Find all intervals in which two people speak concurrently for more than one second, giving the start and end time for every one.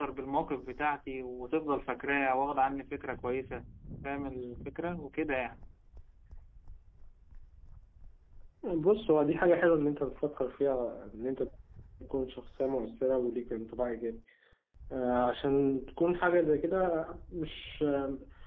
none

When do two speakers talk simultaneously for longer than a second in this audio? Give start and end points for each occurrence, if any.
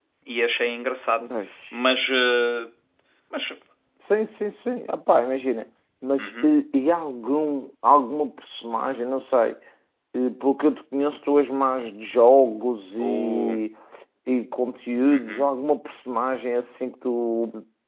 none

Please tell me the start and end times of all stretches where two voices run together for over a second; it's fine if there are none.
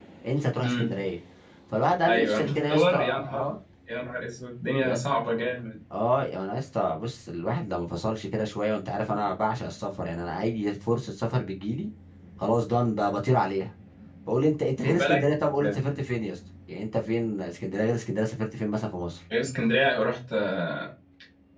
2.0-3.4

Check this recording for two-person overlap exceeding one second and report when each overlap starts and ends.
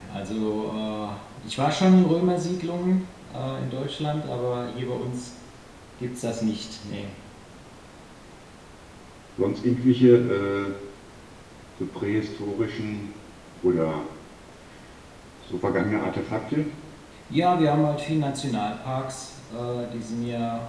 none

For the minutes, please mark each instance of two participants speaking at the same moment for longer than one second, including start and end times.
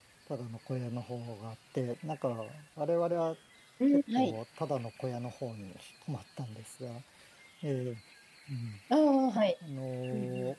none

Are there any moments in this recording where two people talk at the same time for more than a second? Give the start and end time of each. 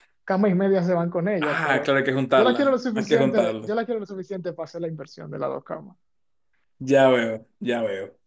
2.4-3.7

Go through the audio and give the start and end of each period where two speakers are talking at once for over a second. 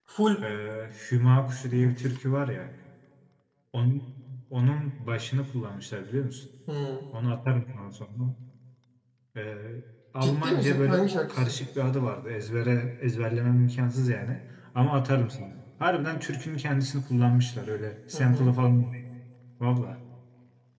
10.2-11.6

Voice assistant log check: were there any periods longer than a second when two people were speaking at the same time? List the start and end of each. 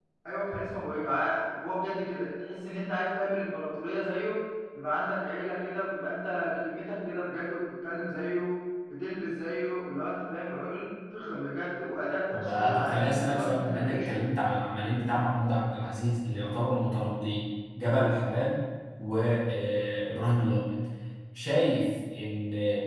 12.3-14.1

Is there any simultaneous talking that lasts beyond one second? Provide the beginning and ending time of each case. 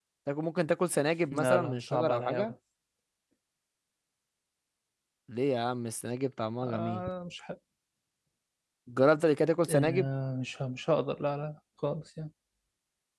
1.3-2.5

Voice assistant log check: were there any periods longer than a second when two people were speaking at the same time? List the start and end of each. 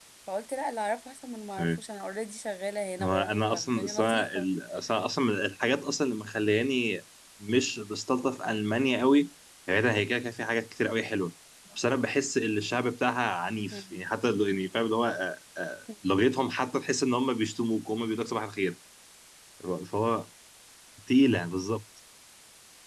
3.0-4.5

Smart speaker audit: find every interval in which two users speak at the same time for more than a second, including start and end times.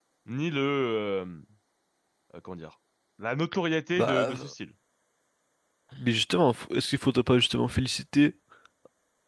none

